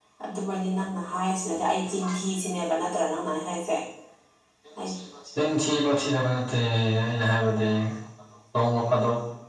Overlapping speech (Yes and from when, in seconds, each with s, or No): No